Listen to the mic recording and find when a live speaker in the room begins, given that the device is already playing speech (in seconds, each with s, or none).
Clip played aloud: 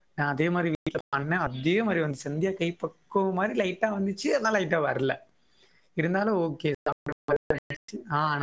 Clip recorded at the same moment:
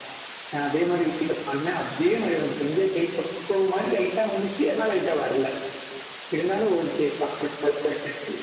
none